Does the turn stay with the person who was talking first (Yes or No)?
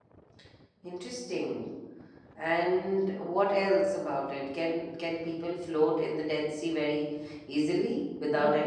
No